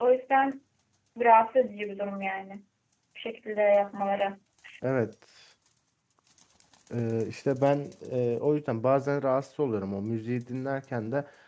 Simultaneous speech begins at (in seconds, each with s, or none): none